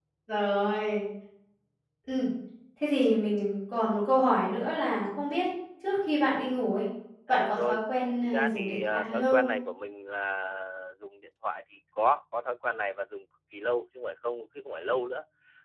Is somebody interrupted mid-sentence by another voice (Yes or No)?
Yes